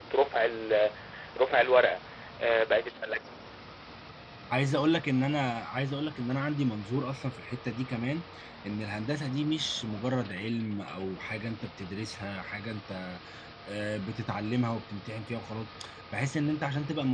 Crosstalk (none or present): none